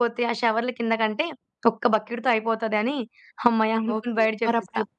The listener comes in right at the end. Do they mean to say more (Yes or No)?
Yes